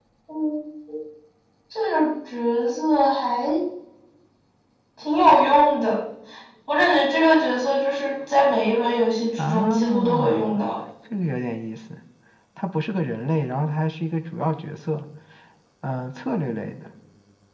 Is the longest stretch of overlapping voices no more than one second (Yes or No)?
No